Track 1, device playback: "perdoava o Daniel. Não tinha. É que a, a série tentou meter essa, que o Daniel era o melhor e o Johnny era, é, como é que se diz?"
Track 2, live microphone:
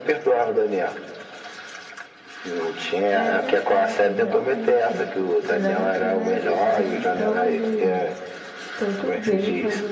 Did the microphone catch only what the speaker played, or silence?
No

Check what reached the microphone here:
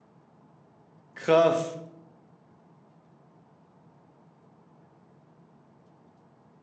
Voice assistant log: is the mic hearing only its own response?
No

